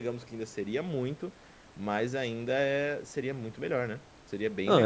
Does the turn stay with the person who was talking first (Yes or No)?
No